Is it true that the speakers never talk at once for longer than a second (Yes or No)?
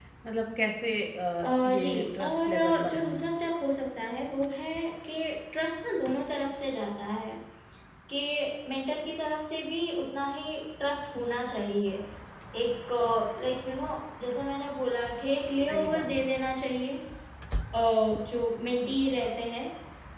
No